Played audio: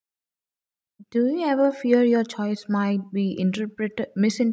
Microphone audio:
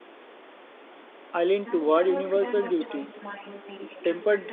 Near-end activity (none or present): present